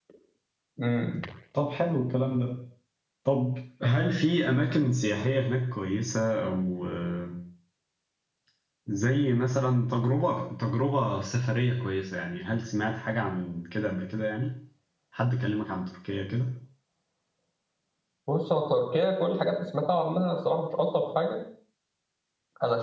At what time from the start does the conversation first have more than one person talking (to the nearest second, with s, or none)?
none